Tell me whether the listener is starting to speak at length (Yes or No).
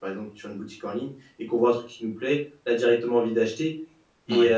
No